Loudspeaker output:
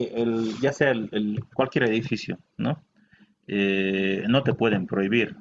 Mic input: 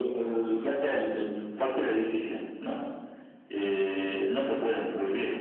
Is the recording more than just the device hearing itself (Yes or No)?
No